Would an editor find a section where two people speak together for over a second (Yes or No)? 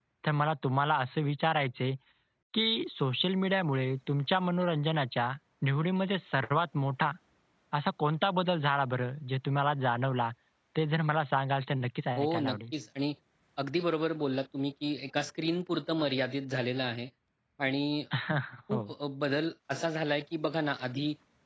No